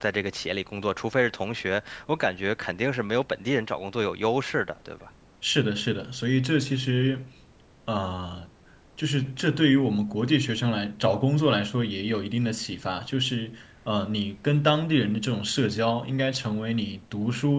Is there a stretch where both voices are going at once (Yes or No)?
No